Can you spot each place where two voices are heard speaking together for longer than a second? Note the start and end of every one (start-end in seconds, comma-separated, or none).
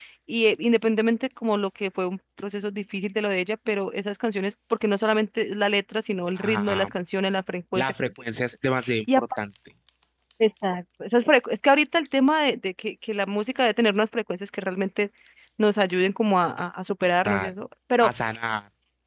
none